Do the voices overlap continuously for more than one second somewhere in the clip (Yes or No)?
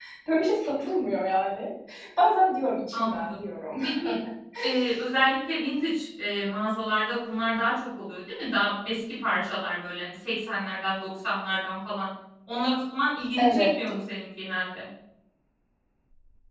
No